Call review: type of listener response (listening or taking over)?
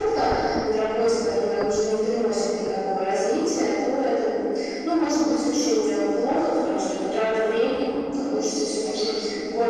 listening